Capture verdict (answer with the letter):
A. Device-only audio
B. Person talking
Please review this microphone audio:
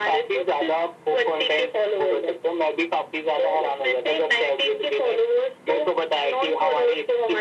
A